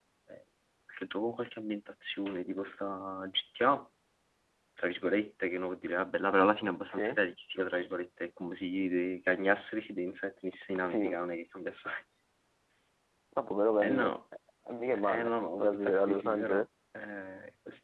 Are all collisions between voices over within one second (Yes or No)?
No